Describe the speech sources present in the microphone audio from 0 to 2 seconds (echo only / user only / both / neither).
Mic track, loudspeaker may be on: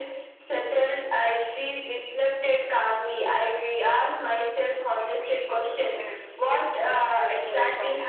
echo only